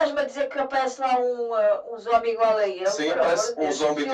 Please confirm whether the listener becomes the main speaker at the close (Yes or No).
Yes